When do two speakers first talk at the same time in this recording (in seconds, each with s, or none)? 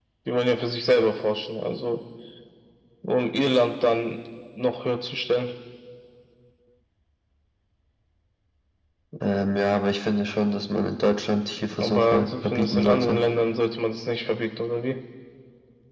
11.8 s